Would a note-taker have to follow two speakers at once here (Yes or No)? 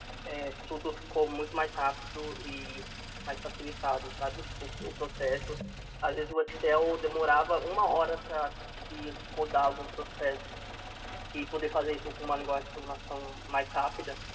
No